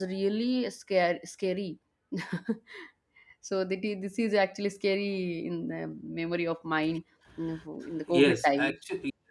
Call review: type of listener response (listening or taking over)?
taking over